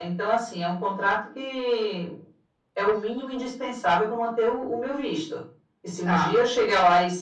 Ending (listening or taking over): listening